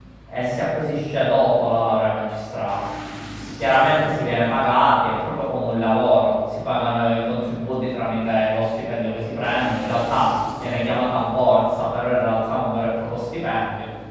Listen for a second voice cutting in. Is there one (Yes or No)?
No